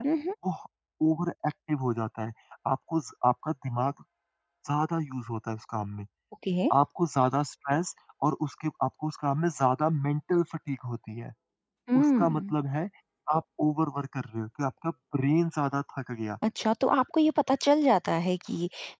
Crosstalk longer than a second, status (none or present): none